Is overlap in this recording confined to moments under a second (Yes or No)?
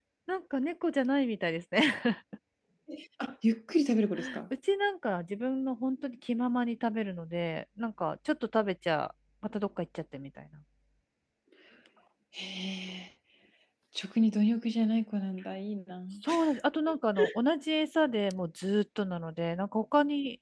Yes